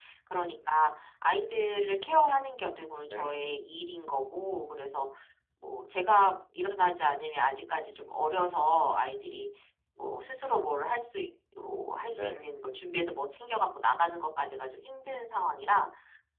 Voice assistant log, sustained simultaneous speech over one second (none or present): none